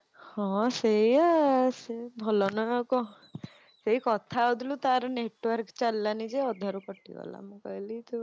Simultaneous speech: No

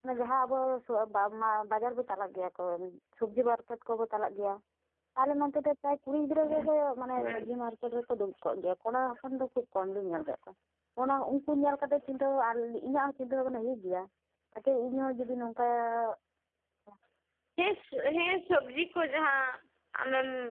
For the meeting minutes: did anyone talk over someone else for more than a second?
No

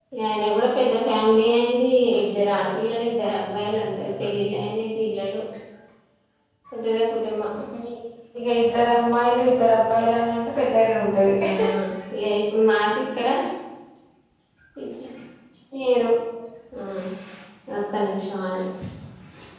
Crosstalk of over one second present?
No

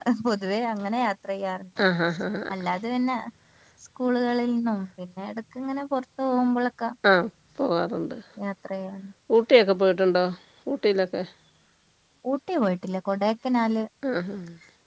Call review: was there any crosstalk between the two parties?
No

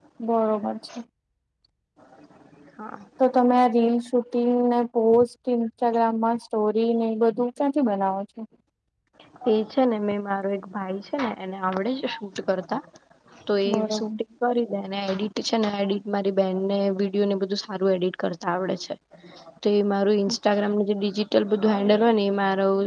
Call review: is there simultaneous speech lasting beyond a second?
No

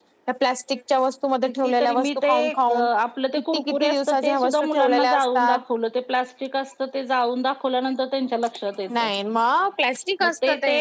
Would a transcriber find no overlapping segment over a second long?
No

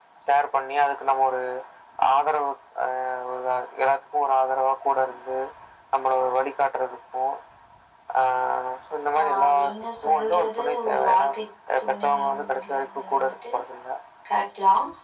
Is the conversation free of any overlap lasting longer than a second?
No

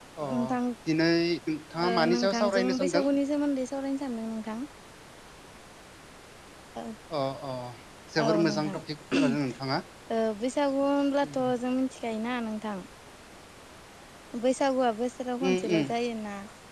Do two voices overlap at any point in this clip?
Yes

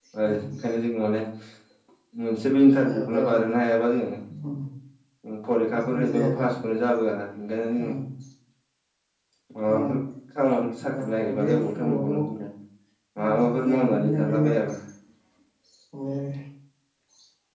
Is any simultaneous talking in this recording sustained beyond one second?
Yes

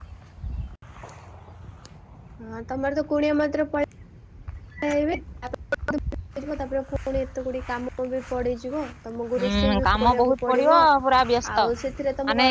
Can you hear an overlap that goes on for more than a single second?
Yes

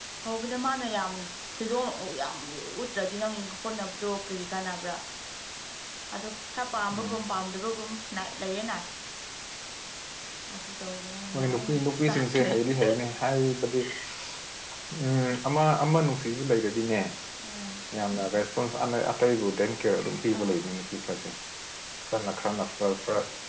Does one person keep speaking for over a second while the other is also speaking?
Yes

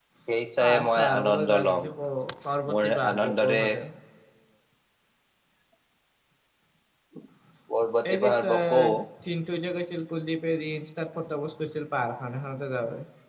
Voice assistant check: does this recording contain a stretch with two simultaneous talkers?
Yes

